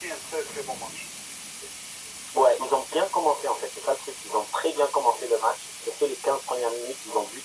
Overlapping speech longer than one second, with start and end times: none

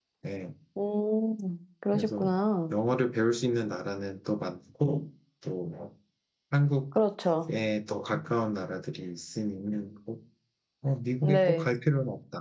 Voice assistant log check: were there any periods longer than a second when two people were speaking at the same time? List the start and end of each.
none

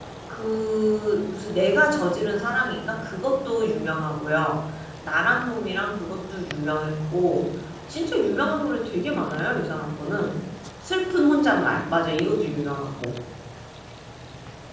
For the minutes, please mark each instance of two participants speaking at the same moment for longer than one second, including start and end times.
none

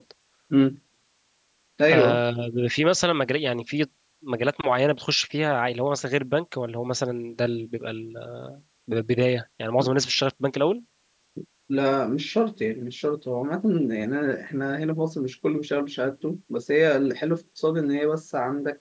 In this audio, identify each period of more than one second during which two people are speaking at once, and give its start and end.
none

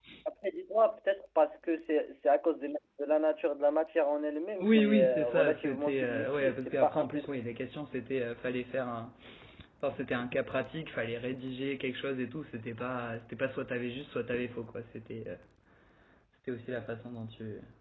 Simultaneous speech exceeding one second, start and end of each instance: 4.6-7.3

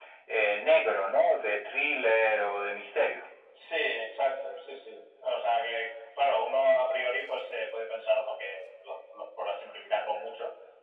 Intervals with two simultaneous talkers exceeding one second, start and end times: none

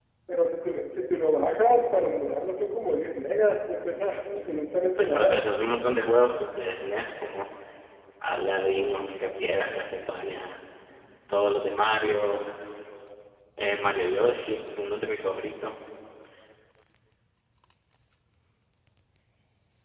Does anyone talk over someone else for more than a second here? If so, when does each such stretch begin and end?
none

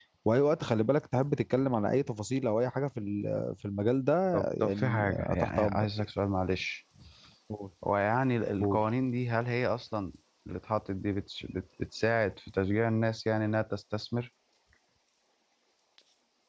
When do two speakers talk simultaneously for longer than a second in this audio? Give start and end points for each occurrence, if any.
4.3-5.9

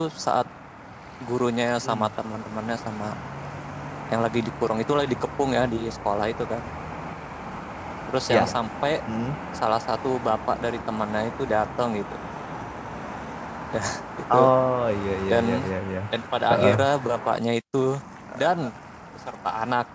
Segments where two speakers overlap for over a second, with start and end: none

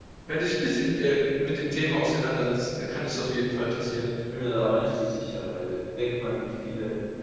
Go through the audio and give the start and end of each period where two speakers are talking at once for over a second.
none

